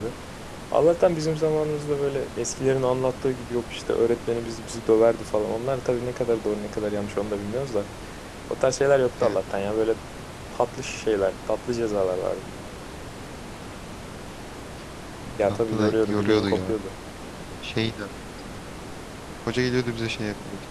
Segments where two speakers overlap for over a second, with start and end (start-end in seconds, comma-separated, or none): 15.5-16.8